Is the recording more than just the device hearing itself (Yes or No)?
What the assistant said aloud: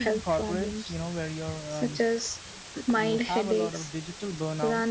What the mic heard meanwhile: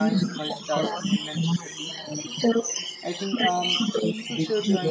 Yes